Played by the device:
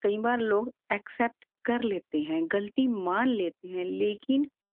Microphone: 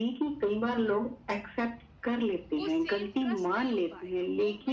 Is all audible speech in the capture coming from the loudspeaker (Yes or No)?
No